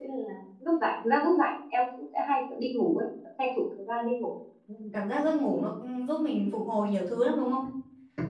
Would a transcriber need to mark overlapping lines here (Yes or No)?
No